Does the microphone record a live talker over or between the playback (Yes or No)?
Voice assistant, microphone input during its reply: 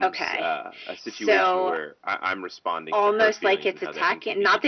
No